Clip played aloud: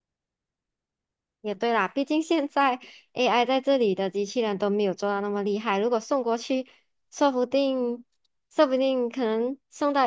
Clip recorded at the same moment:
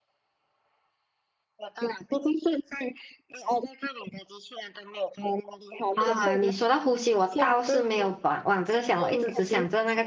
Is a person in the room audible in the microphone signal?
Yes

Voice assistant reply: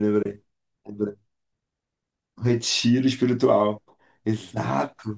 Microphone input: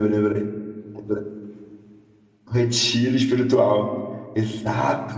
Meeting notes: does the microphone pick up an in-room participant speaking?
No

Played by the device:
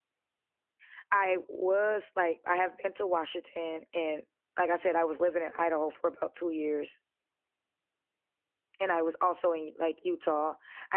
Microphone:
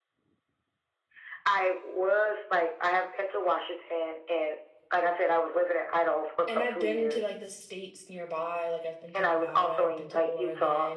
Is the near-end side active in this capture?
Yes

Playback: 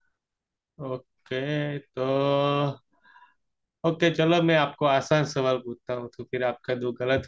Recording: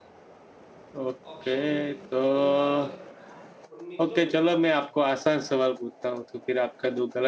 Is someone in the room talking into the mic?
Yes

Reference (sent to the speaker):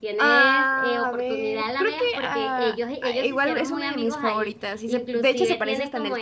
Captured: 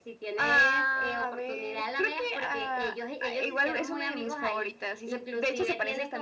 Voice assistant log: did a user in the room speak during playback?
No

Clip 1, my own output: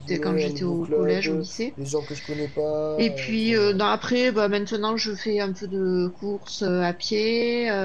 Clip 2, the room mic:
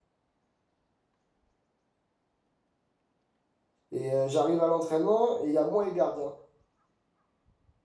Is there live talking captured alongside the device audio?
Yes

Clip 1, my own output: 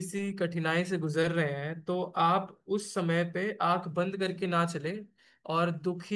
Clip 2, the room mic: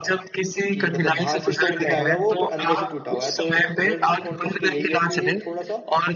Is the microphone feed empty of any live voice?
No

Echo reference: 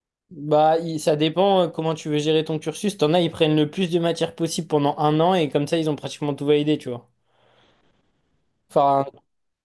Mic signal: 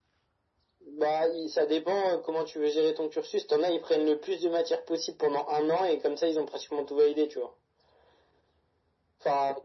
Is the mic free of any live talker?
Yes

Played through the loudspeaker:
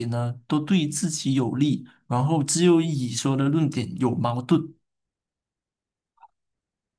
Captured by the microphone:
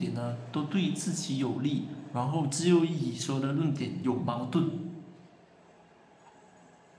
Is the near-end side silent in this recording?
Yes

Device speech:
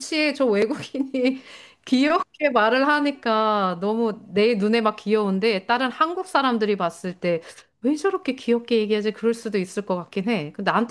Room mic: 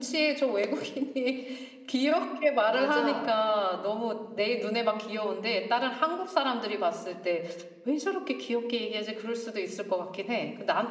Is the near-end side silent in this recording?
No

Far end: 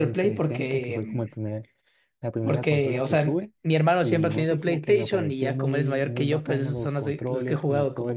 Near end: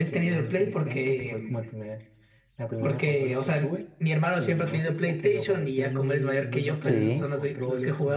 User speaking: Yes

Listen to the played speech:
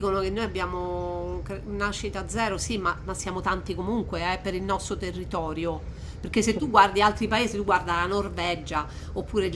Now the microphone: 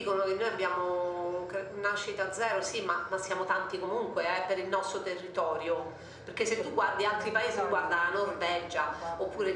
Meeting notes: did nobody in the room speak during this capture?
No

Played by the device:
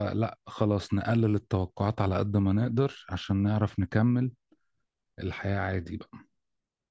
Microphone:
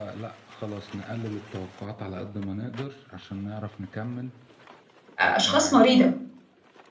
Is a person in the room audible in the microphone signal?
Yes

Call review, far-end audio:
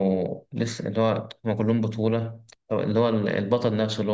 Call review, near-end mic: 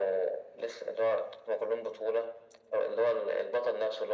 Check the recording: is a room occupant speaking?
No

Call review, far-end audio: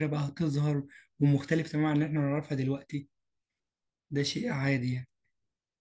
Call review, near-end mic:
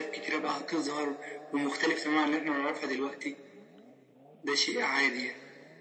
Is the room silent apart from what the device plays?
Yes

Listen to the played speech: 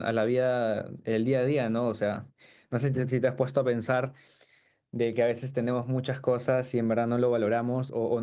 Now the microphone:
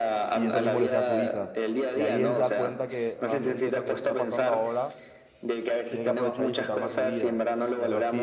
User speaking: Yes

